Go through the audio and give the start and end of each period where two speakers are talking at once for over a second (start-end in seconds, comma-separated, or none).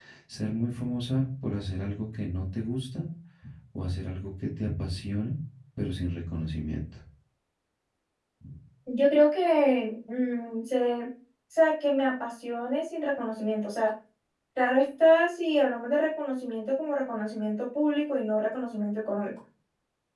none